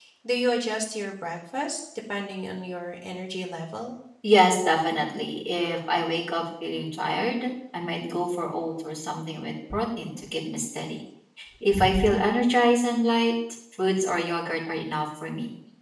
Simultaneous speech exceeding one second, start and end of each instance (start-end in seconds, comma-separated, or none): none